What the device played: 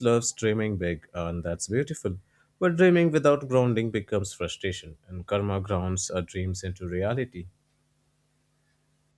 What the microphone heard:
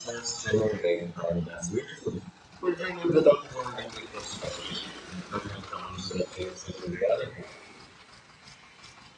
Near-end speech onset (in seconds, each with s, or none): none